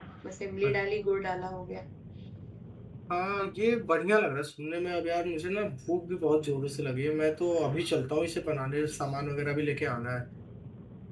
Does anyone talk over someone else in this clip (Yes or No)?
No